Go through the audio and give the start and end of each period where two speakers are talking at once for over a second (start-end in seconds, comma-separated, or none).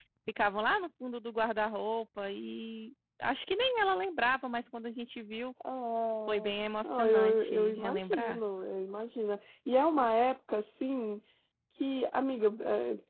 6.8-8.4